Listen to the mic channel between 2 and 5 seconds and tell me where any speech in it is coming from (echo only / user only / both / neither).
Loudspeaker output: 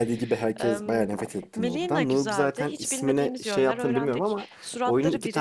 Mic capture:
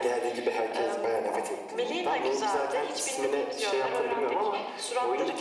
echo only